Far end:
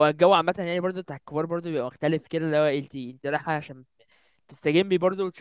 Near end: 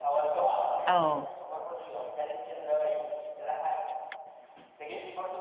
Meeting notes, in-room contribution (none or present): present